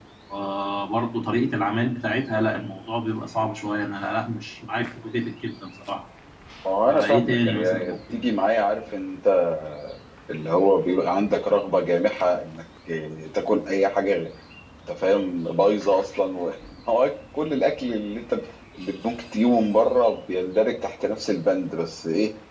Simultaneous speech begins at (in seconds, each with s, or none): 6.8 s